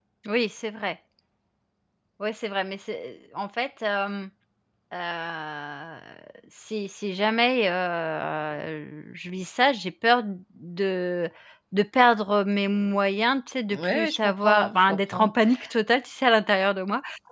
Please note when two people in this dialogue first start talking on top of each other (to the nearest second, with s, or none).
14 s